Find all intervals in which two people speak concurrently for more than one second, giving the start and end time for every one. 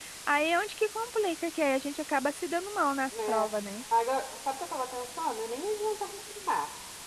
none

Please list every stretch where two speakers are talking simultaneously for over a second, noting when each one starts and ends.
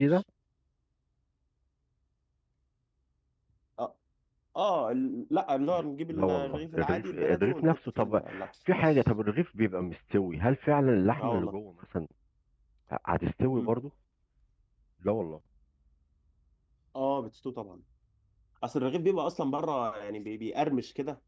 6.1-8.2

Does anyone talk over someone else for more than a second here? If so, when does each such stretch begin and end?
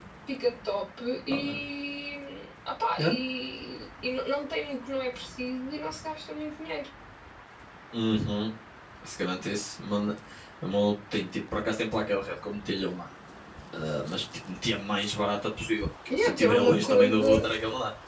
16.1-17.5

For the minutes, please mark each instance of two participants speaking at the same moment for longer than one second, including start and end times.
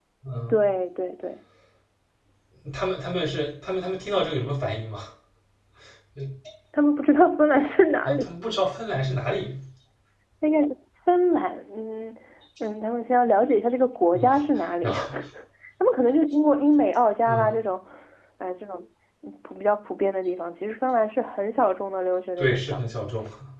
none

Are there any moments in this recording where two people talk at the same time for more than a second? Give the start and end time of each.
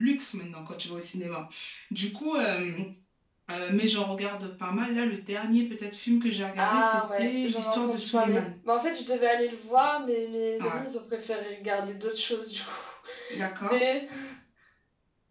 6.6-8.5

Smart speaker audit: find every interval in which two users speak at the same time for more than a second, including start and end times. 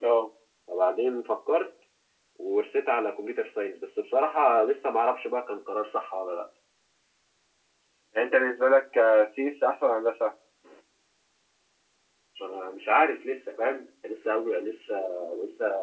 none

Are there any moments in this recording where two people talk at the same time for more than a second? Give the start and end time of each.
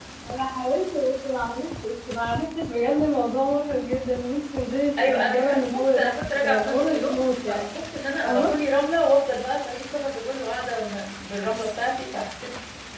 5.0-7.6

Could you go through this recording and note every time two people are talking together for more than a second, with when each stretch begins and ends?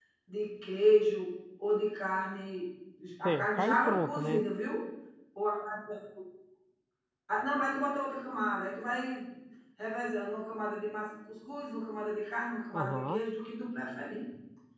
3.2-4.5

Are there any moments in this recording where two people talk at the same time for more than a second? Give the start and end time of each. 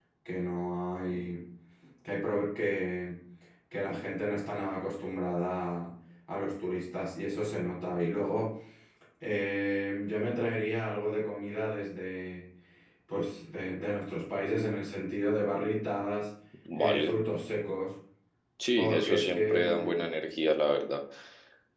18.8-20.0

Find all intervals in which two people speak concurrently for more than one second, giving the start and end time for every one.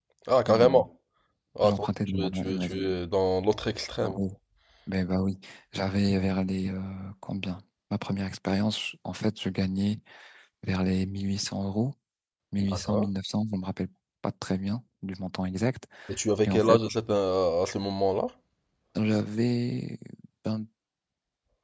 1.6-2.8

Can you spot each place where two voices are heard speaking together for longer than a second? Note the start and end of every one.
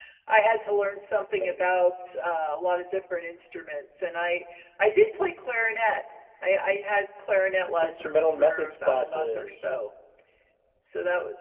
7.8-9.7

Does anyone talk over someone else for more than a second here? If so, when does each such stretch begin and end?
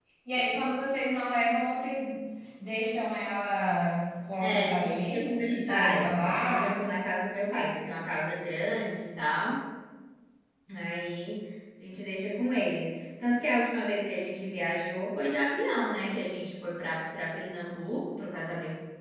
4.4-6.7

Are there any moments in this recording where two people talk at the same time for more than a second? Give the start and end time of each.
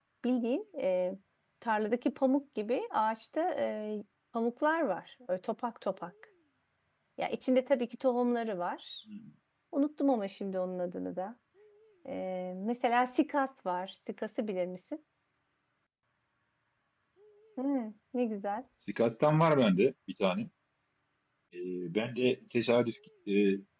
none

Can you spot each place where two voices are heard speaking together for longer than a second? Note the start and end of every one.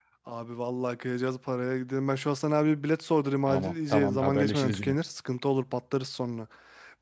3.5-5.0

